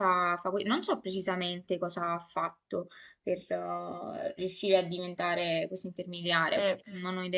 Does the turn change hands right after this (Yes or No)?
Yes